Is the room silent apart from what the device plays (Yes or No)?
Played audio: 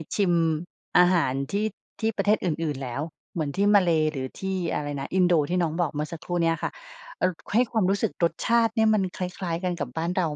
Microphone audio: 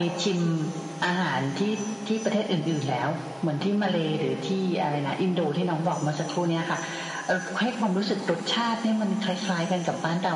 Yes